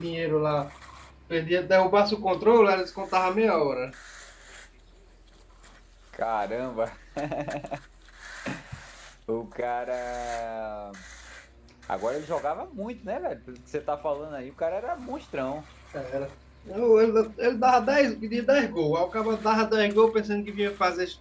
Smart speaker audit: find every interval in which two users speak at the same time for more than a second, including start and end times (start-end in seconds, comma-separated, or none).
none